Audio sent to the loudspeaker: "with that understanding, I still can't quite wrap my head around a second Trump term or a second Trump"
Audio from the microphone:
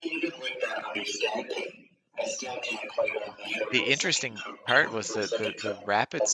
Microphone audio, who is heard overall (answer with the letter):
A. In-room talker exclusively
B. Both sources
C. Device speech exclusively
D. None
B